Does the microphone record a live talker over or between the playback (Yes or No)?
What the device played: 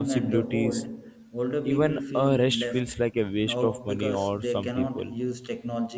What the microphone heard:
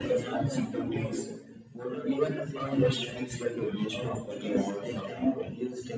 No